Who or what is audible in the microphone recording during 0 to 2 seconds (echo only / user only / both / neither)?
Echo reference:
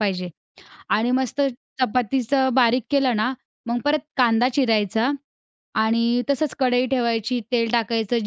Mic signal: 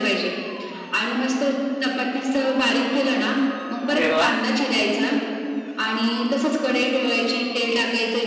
echo only